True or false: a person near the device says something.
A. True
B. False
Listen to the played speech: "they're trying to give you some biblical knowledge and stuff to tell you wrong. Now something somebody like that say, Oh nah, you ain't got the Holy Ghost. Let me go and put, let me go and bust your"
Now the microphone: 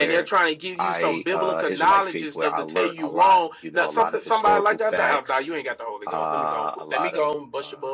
A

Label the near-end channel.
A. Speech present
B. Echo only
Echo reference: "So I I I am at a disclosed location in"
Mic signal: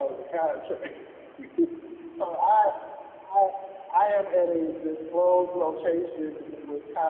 B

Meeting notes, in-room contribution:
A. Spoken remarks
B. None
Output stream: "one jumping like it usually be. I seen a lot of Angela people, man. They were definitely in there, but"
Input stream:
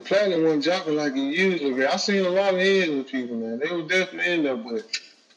B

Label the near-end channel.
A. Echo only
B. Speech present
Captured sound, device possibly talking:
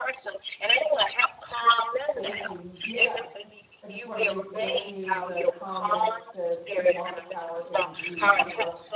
B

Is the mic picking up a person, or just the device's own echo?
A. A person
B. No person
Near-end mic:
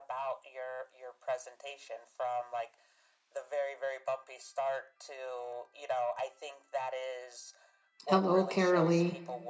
A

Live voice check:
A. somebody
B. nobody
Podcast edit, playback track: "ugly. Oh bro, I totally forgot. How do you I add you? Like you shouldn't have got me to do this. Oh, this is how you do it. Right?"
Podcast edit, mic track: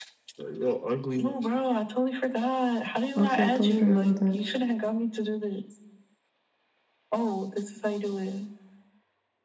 A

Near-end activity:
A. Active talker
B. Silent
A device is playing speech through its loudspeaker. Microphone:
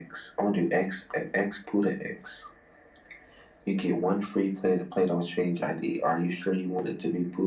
B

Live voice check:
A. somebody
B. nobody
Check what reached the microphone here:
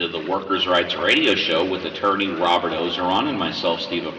A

